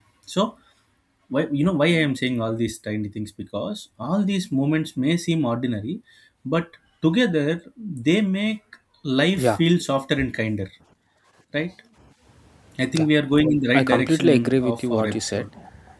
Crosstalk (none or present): present